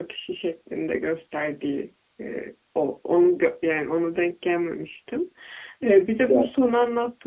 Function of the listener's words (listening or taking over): listening